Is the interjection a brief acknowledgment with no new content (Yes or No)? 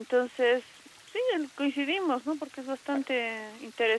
Yes